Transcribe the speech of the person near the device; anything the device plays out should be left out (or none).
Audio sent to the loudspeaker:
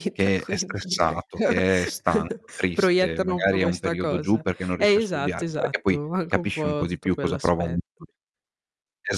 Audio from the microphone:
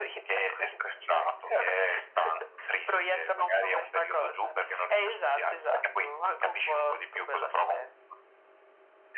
none